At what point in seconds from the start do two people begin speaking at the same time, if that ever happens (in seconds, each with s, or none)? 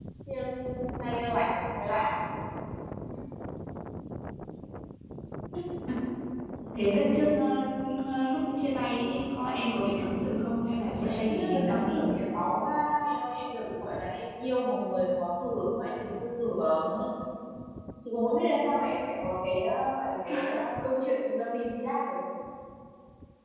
10.9 s